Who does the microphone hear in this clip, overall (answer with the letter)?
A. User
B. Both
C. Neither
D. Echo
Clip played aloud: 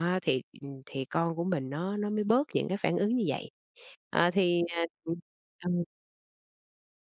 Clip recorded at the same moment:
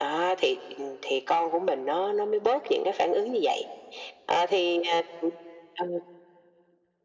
D